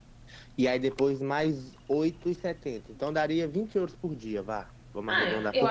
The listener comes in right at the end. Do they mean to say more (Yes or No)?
Yes